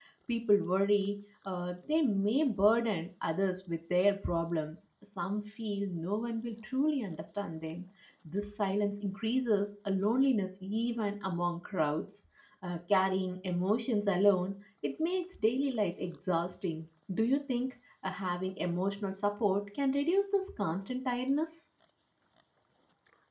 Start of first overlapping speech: none

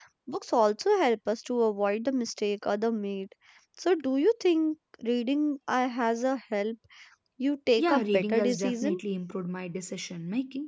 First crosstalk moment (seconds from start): 7.8 s

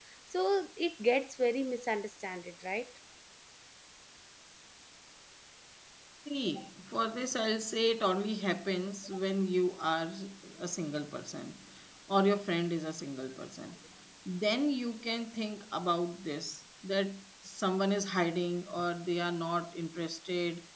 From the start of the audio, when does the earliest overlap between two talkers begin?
none

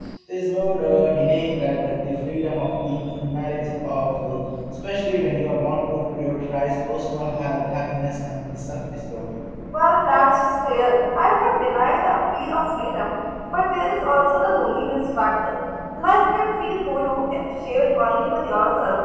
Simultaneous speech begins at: none

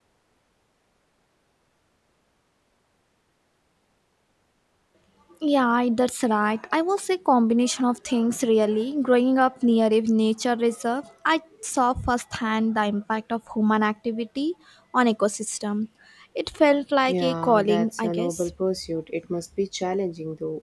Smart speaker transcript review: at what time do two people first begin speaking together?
17.1 s

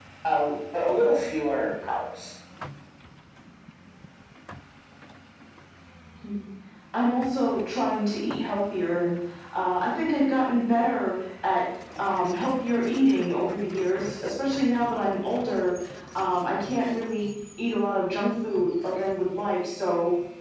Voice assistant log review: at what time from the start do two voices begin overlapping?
none

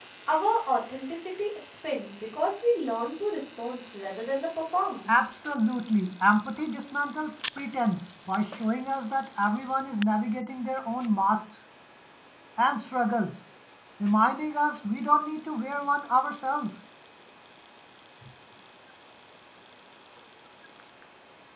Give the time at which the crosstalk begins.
none

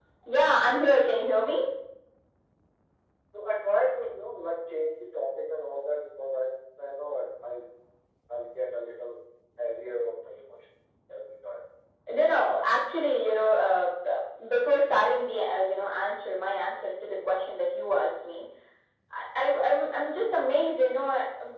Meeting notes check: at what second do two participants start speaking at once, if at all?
none

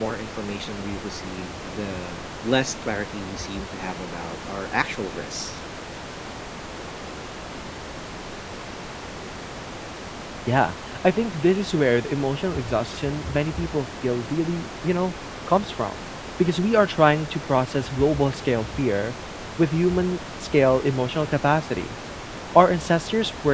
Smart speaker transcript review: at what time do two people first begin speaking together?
none

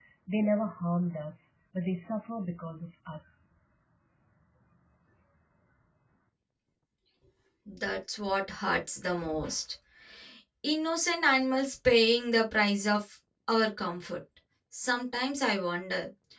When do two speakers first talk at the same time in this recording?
none

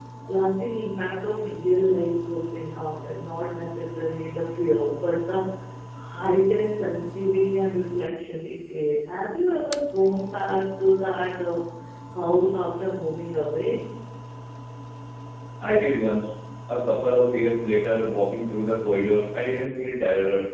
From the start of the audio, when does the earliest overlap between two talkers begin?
none

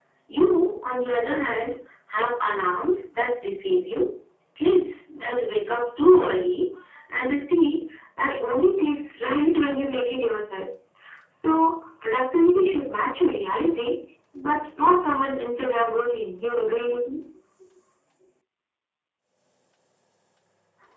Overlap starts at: none

